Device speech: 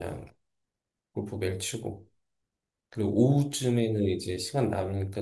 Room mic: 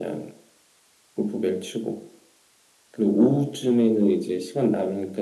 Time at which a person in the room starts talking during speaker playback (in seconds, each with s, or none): none